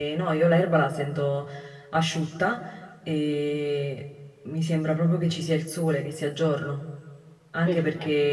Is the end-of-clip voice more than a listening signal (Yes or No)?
No